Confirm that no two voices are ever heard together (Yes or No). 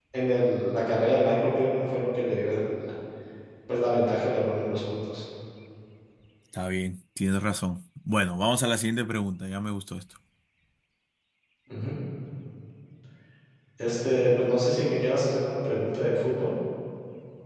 Yes